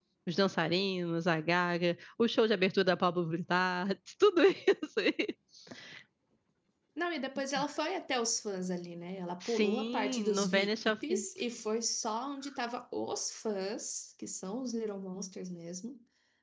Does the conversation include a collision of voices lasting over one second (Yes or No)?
Yes